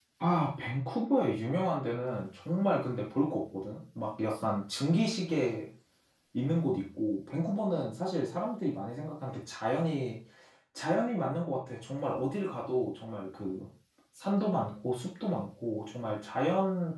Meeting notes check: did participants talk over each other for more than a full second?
No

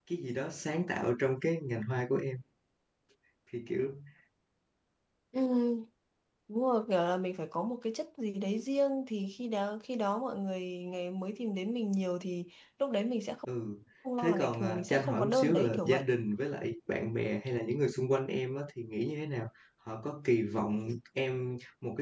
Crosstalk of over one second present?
Yes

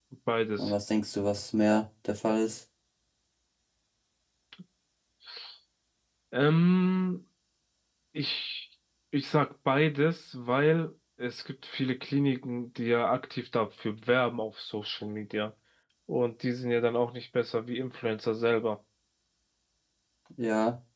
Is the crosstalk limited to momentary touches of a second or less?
Yes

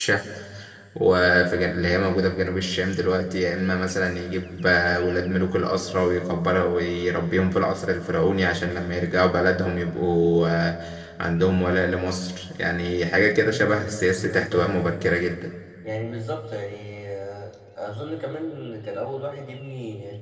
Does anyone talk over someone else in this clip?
Yes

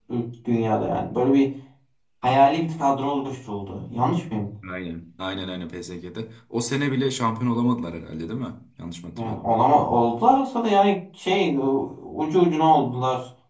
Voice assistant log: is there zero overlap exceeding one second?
Yes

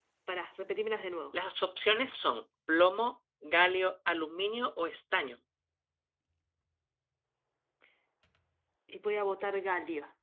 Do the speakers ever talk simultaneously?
No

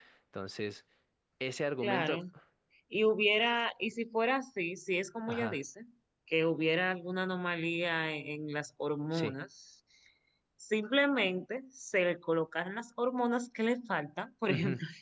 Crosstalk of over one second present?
No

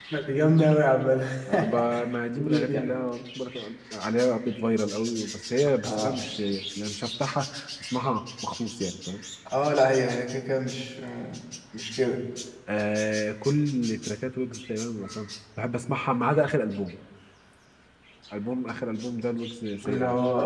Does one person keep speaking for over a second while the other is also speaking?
No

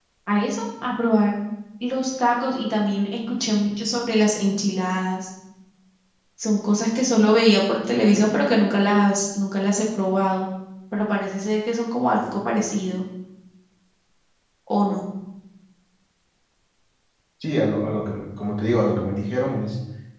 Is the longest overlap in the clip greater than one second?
No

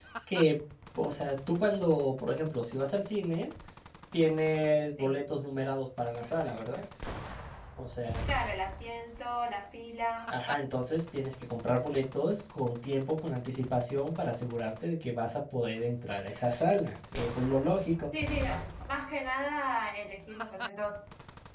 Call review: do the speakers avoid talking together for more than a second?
Yes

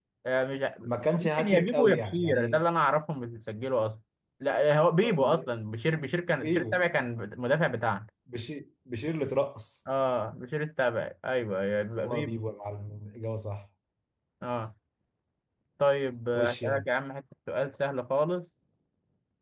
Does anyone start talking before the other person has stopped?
Yes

